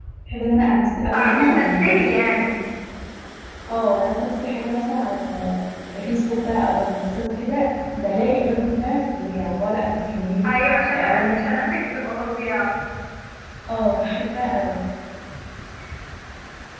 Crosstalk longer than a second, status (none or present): present